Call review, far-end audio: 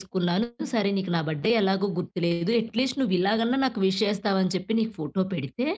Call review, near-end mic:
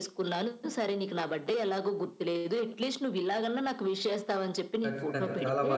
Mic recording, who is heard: both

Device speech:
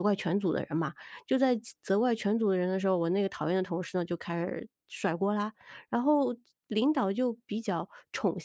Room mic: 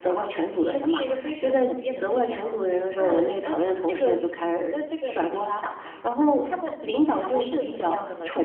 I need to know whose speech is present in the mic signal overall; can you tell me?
both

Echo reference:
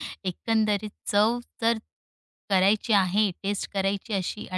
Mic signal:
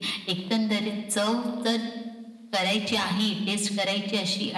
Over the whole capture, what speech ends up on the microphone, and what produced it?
echo only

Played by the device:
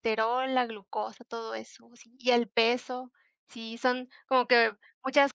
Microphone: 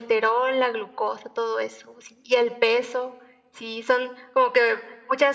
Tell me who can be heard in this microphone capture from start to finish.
echo only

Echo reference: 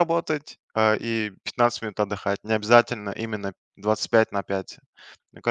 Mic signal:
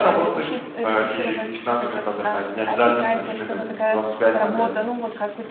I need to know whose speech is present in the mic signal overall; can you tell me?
both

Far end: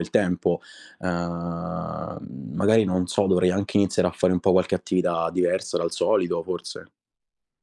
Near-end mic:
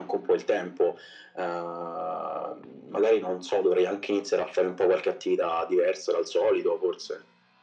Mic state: echo only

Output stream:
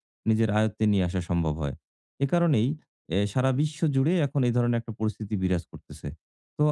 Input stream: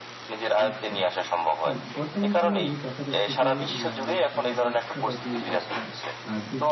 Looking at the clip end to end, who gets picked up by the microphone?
both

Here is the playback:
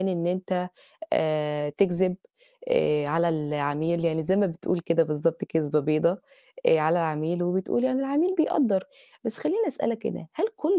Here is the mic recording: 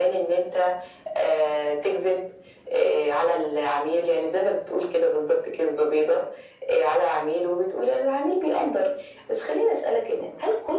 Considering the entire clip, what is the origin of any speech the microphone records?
echo only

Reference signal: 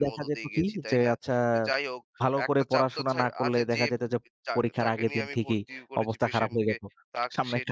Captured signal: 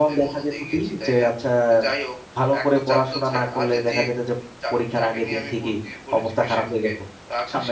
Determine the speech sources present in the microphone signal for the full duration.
echo only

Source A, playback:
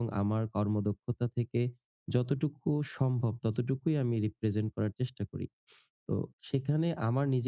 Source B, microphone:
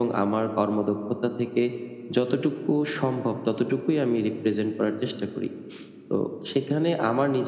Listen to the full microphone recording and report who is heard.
echo only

